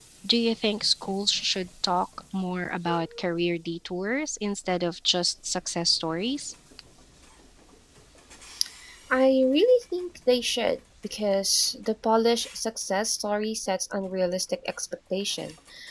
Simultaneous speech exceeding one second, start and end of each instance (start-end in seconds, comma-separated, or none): none